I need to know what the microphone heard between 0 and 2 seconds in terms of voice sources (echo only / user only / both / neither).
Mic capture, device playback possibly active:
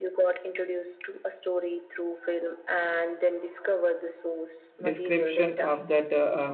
echo only